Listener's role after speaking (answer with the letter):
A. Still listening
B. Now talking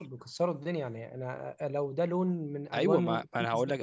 B